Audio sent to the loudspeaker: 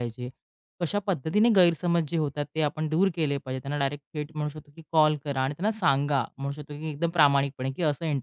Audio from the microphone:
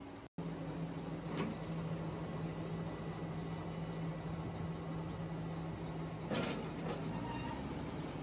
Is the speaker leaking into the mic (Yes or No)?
No